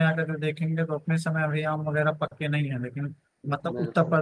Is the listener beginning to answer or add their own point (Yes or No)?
No